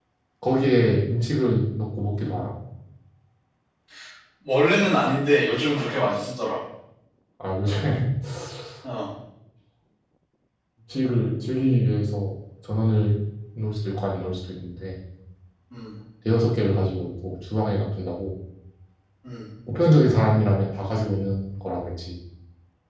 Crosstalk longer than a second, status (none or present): none